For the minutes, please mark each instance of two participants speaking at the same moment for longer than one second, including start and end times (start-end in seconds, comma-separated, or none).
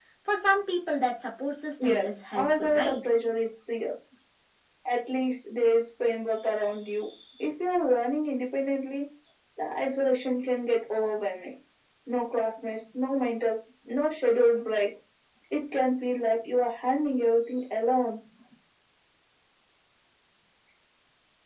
1.9-3.1